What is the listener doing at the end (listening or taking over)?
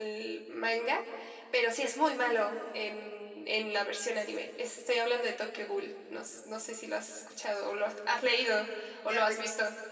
taking over